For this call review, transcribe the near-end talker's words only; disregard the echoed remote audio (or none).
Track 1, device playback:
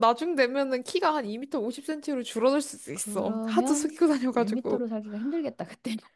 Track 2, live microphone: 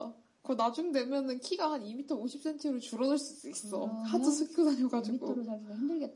none